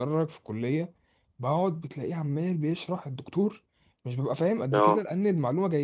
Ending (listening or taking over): listening